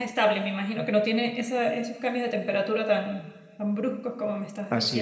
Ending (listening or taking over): taking over